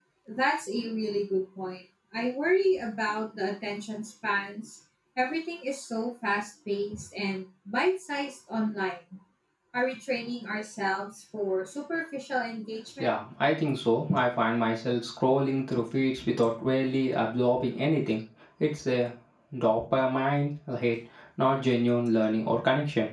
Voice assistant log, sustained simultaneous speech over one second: none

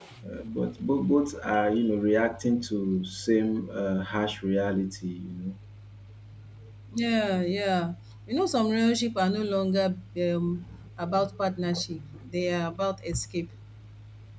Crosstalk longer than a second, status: none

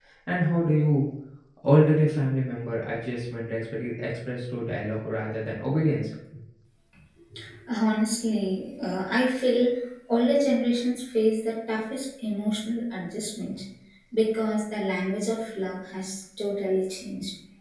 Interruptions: none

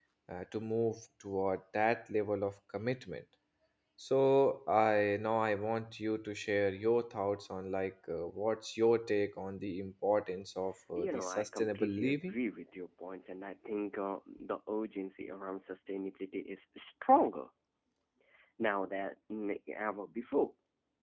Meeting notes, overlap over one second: present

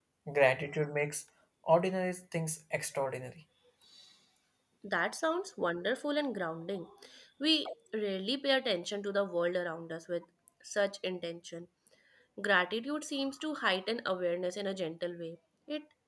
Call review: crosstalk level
none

